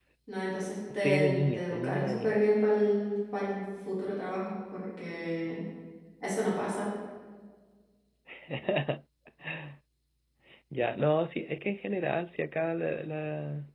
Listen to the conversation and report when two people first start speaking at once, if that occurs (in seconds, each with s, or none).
0.9 s